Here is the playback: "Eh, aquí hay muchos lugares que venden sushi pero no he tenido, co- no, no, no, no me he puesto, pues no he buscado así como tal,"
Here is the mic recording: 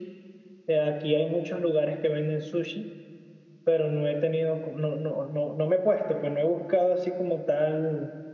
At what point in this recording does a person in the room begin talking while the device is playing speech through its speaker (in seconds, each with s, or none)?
none